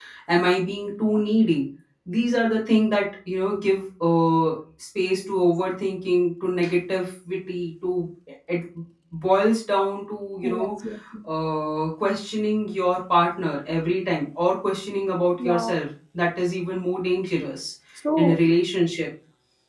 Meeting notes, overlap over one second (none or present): none